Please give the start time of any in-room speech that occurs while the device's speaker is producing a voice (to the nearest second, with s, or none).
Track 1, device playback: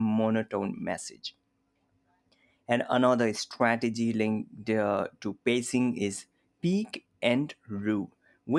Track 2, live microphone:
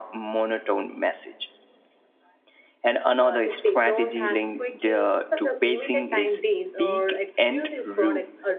3 s